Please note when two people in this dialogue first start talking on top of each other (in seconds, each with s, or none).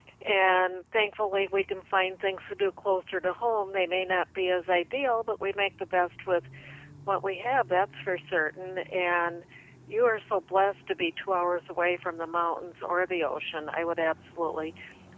none